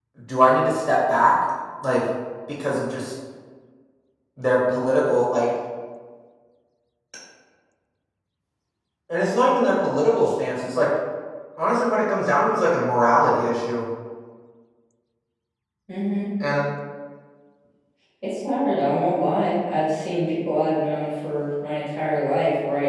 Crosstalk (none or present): none